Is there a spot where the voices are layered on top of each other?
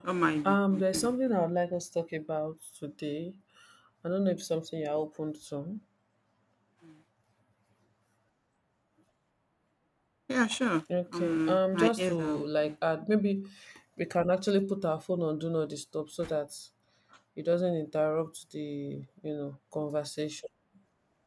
Yes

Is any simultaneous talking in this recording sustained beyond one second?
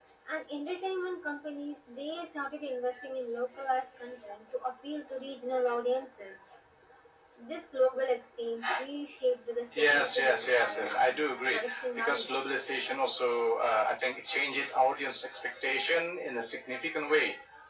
Yes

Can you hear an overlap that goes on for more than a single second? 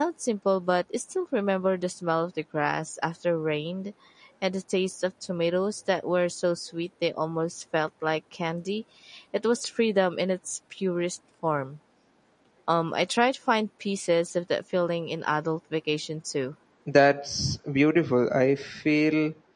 No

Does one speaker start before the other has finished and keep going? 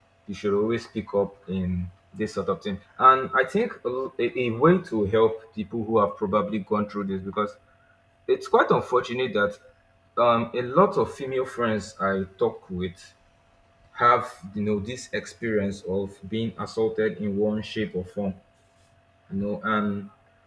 No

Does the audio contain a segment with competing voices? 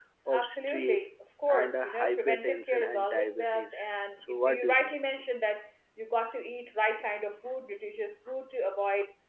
Yes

